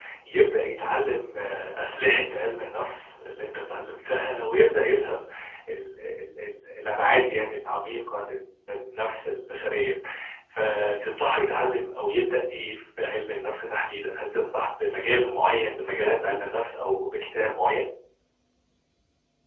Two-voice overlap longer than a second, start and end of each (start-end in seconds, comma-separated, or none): none